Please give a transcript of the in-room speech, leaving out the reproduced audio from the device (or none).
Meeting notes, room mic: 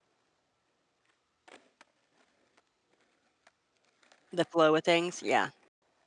The flow of things, yeah.